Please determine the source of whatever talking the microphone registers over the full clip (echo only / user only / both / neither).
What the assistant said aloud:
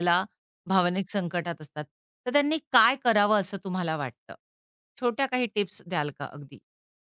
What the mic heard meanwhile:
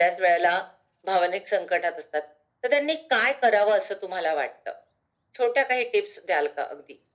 echo only